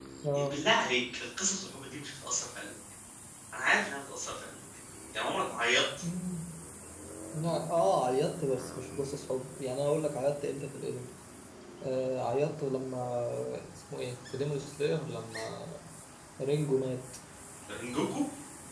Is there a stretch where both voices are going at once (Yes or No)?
No